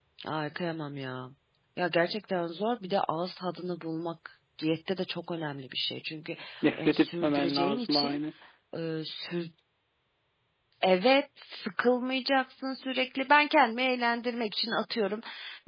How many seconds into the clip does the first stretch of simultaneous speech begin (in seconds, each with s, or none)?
6.8 s